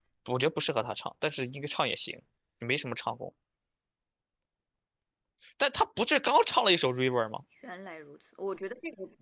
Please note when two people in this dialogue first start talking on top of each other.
none

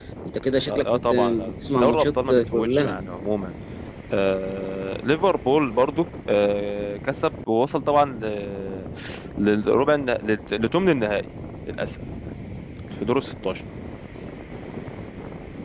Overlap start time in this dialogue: 0.7 s

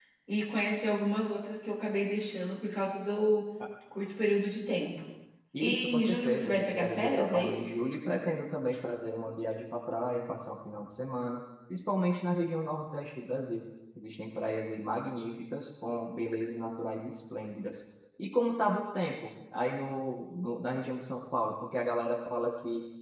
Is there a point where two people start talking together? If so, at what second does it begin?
5.6 s

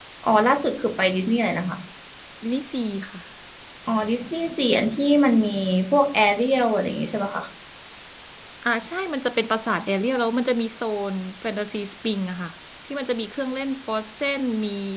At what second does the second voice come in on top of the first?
none

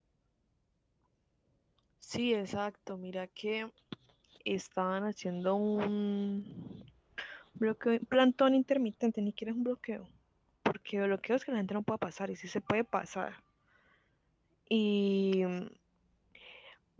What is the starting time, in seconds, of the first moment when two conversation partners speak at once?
none

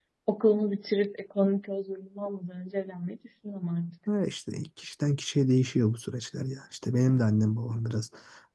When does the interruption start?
none

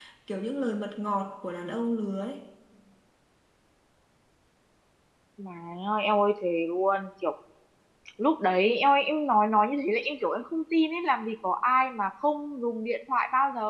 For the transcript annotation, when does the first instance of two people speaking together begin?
none

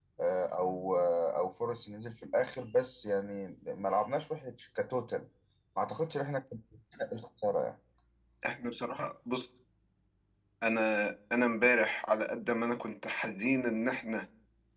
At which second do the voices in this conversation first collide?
none

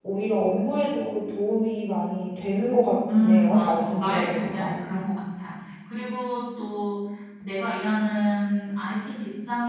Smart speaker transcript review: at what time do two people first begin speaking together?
3.0 s

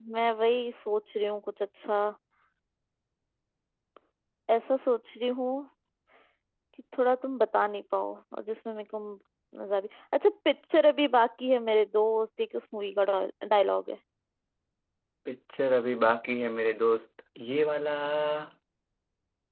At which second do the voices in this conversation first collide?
none

